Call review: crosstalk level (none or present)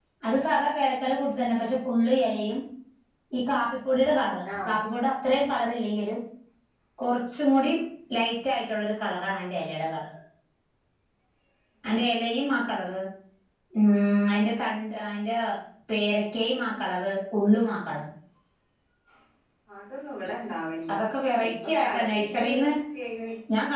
present